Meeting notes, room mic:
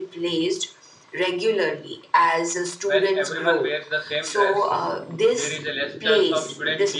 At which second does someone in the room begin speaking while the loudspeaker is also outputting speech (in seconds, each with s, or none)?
2.8 s